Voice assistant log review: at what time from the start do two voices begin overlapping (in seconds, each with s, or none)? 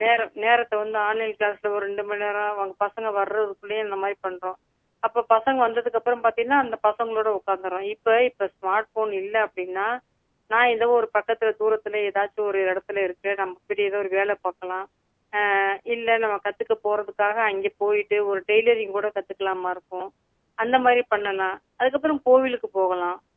none